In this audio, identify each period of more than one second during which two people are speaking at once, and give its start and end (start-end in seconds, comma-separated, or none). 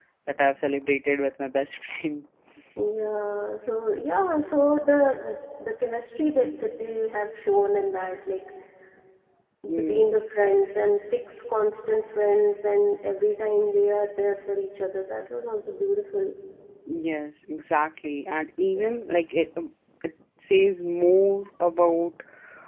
none